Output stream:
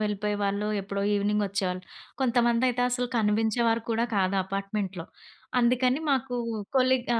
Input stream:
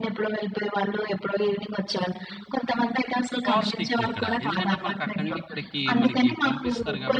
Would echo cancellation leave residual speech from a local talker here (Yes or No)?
Yes